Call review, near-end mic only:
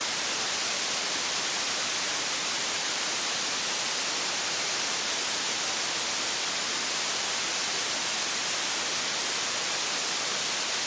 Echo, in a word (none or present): none